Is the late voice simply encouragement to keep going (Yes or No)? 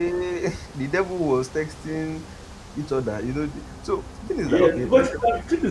No